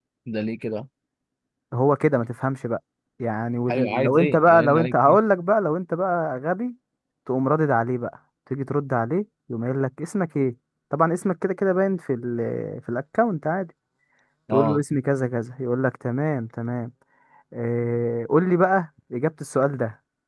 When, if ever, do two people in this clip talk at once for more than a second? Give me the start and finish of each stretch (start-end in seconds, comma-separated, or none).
3.7-5.2